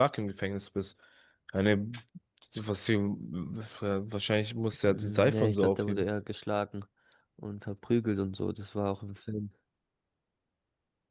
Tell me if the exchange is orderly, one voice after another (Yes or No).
No